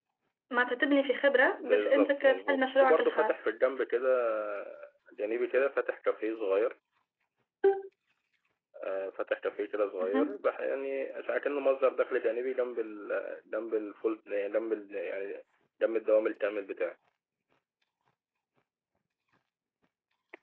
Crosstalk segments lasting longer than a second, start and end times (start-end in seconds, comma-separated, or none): 1.6-3.4